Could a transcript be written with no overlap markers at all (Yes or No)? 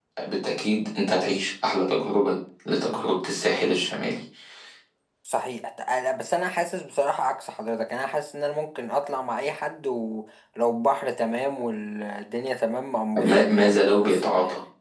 No